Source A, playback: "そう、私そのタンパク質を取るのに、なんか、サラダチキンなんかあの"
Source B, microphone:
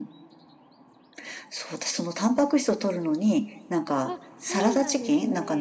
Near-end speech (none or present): present